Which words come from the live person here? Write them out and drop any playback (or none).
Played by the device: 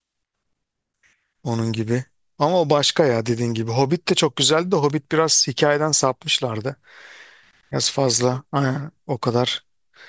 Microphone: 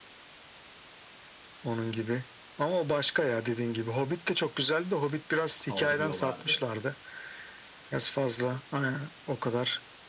saldırıyorlardı.